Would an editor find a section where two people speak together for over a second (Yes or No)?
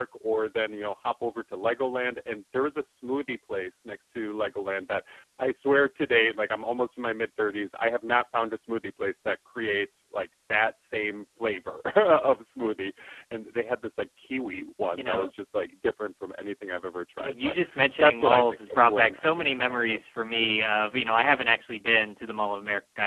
Yes